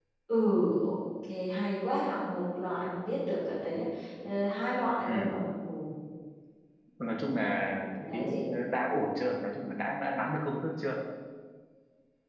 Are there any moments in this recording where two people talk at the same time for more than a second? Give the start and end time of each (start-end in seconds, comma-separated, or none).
none